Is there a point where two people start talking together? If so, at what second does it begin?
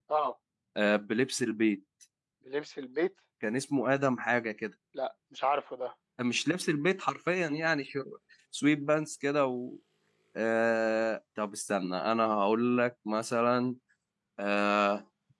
none

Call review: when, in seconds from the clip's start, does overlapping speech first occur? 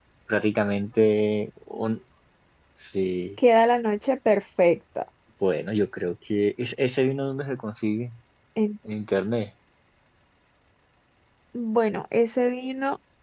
none

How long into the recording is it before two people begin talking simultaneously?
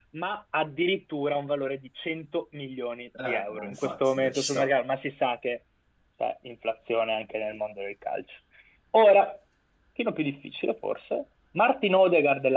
3 s

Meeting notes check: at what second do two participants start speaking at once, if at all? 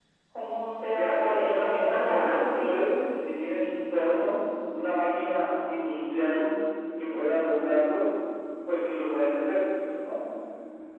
1 s

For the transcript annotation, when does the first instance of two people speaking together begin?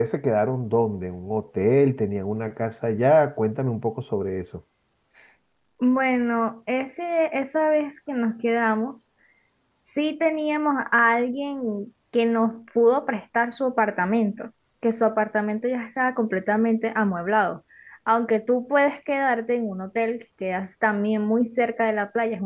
none

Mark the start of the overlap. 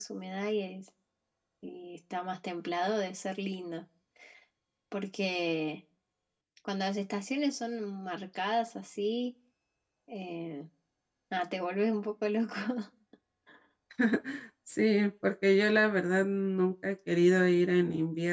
none

